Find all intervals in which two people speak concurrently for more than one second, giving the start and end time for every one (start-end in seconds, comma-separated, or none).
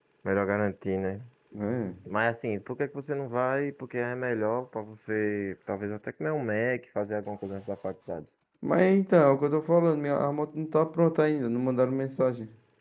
none